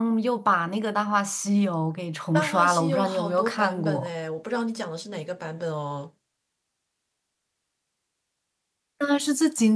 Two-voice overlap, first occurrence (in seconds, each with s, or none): 2.3 s